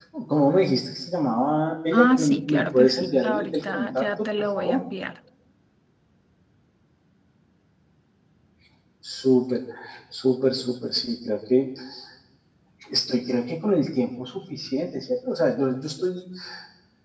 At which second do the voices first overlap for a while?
1.9 s

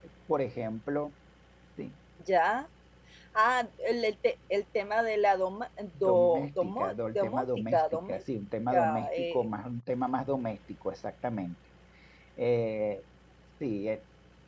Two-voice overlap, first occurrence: 5.9 s

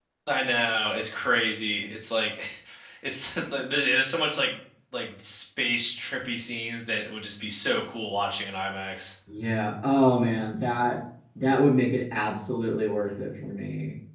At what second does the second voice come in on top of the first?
none

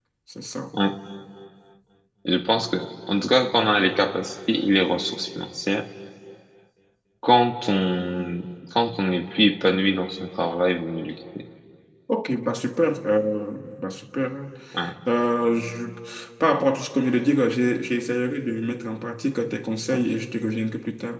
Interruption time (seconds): none

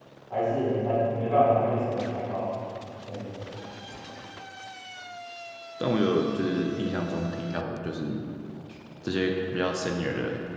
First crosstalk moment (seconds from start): none

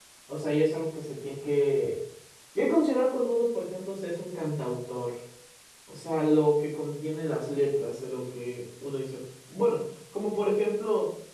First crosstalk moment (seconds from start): none

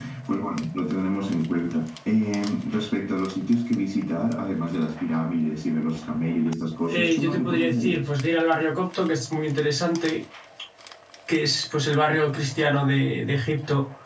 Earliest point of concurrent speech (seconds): 6.9 s

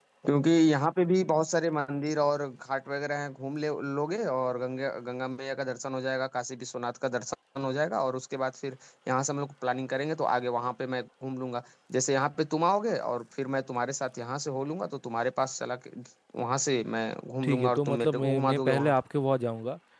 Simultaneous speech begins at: 17.4 s

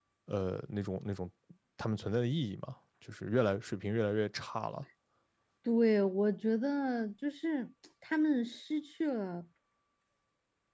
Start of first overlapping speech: none

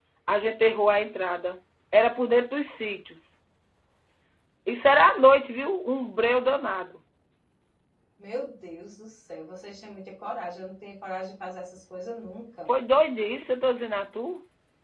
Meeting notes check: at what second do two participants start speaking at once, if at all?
none

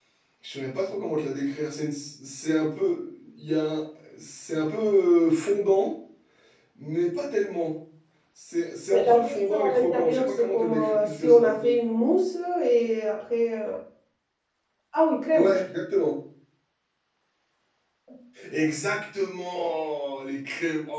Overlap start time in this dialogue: 8.9 s

